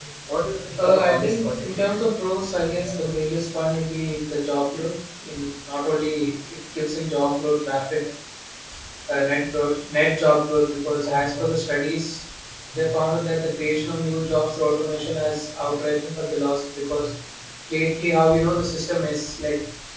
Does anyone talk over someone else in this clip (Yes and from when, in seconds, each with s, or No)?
Yes, from 0.8 s